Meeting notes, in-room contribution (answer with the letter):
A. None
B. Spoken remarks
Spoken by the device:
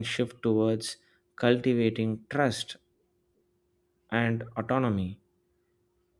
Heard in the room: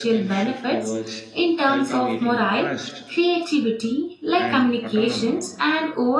B